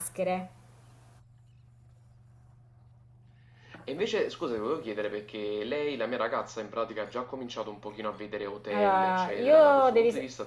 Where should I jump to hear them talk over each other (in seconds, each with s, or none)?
8.7 s